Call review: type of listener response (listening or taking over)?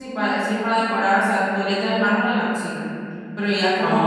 listening